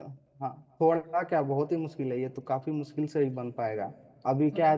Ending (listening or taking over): listening